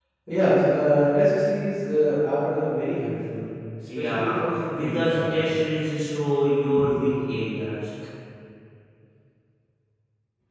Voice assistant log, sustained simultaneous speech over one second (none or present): present